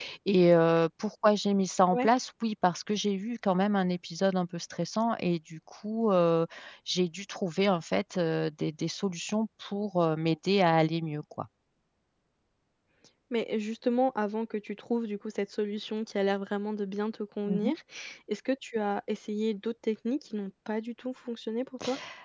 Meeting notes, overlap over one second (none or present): none